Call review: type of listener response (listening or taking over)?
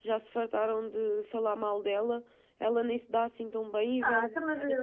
taking over